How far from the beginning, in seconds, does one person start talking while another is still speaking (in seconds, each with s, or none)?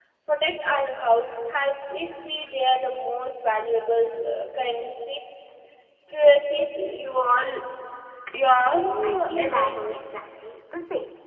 8.7 s